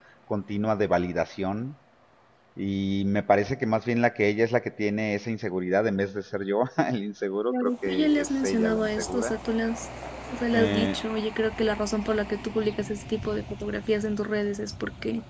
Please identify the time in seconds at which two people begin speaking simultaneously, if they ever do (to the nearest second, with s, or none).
7 s